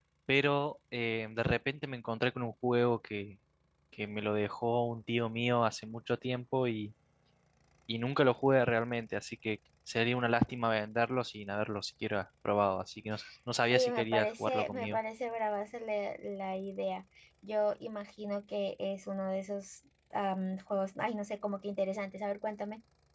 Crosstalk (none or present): present